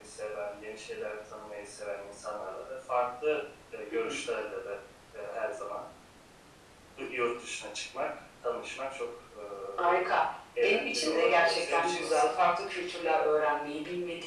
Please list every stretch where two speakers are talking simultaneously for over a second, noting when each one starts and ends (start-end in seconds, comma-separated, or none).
10.6-12.3